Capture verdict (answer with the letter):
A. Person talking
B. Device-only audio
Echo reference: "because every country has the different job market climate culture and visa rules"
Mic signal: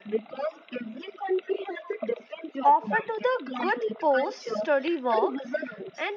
A